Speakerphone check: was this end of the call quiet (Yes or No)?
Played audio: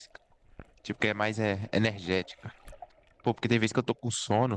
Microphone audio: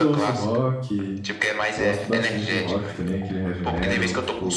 No